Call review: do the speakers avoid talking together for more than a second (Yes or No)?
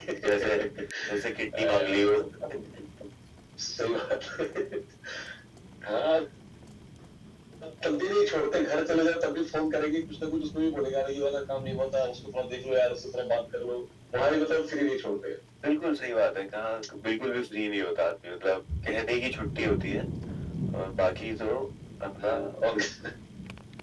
Yes